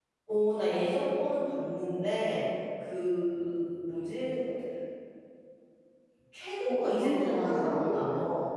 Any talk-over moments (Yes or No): Yes